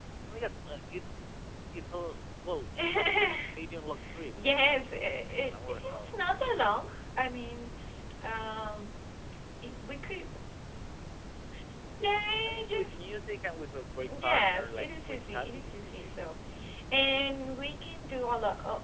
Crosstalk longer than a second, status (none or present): present